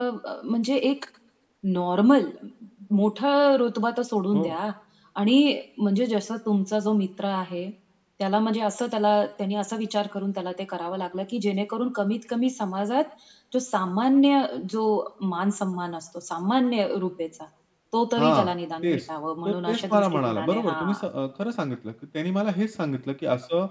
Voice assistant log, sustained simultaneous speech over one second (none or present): present